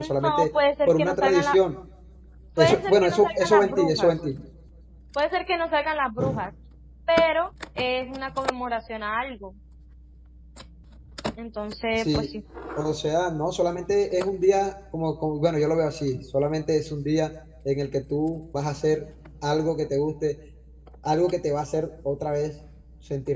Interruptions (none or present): present